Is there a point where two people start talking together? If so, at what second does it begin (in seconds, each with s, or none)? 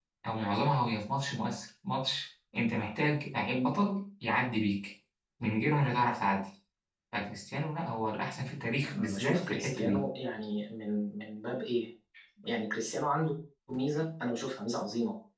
8.8 s